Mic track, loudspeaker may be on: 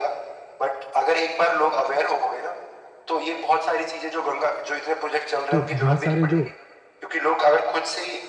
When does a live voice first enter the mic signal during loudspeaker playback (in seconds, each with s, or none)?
5.5 s